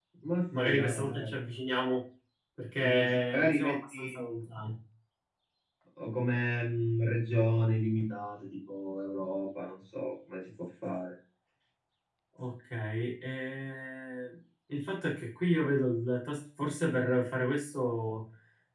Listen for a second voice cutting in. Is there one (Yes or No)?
Yes